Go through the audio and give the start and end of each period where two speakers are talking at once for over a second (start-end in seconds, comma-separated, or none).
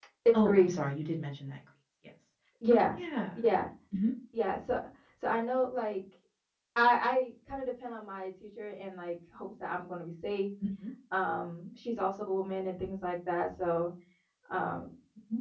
none